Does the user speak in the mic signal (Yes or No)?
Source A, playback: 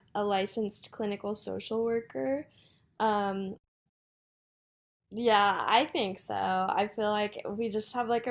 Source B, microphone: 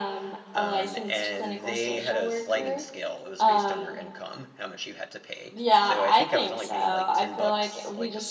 Yes